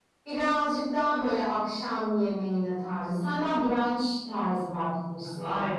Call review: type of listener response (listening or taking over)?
taking over